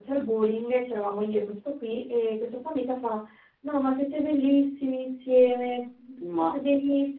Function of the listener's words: listening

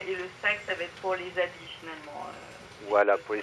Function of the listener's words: taking over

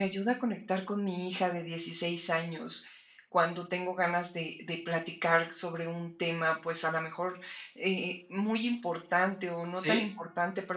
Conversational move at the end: listening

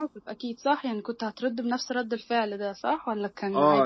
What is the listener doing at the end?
taking over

